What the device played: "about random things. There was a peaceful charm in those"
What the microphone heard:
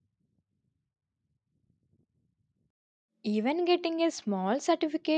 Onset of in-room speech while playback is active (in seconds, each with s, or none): 3.2 s